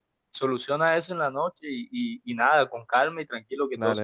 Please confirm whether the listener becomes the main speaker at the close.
Yes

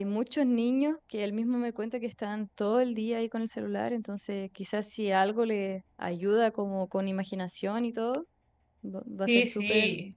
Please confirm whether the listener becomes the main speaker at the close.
Yes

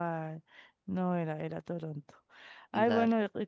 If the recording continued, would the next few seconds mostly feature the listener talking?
No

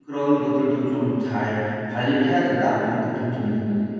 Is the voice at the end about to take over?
Yes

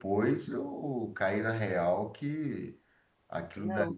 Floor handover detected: No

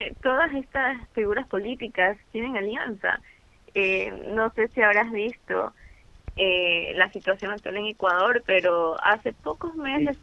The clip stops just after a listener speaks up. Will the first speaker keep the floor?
Yes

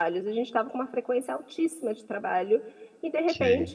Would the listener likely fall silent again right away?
Yes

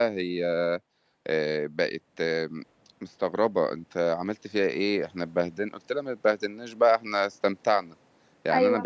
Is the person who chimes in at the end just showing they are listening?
Yes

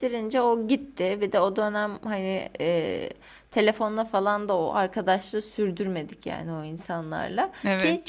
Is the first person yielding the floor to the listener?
No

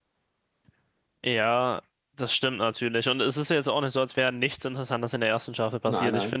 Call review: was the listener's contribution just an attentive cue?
Yes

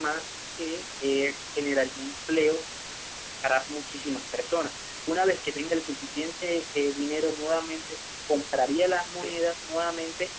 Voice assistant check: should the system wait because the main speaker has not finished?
Yes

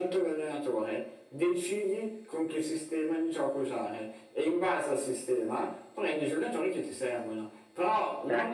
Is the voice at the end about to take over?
No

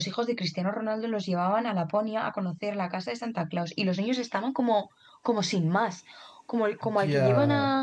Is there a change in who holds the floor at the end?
No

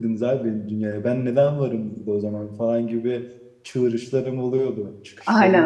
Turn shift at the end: Yes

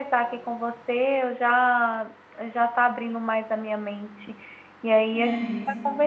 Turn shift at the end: No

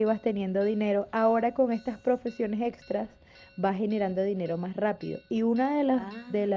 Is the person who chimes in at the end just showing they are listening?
Yes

